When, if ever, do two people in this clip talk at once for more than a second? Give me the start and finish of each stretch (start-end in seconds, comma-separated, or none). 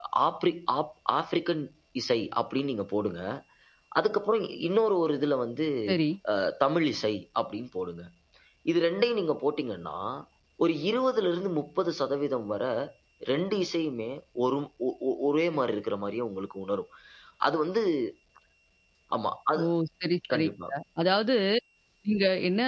none